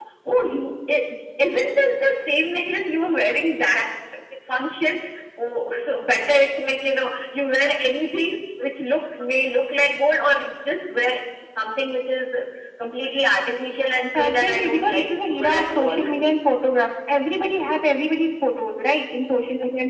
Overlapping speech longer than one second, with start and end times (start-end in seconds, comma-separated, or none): 14.1-16.0